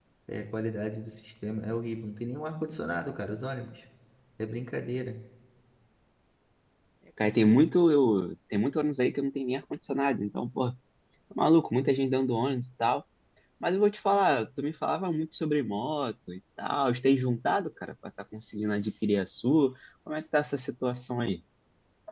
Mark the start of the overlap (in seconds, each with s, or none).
none